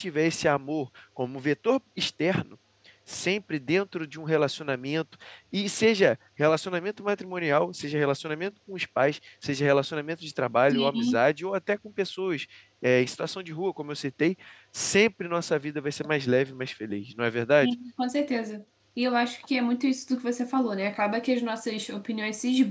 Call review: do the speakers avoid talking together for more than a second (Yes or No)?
Yes